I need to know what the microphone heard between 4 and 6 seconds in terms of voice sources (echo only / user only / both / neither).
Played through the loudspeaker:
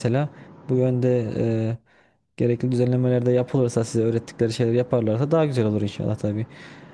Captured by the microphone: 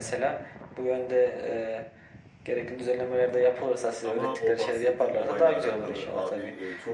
both